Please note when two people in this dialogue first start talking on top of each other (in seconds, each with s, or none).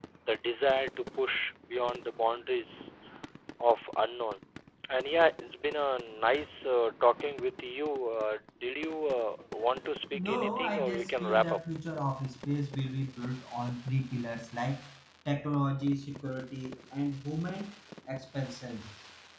10.1 s